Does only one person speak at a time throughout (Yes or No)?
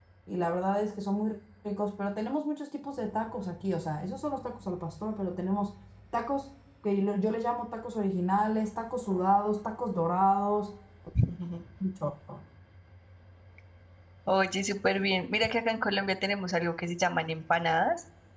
Yes